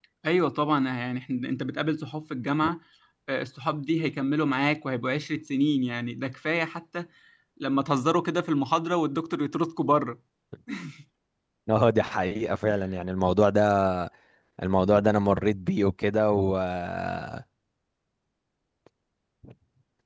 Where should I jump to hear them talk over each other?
none

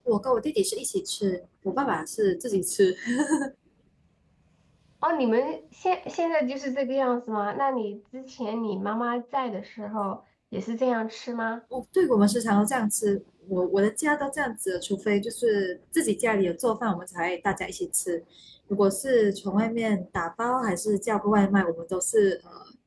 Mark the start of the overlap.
none

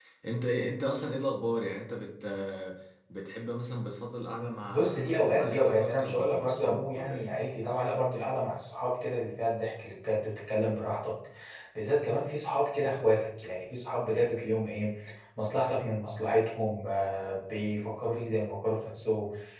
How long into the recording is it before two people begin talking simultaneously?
4.7 s

